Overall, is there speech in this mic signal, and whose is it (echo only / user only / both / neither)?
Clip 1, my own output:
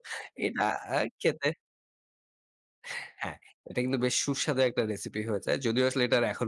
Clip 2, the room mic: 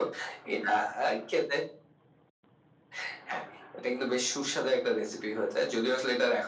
echo only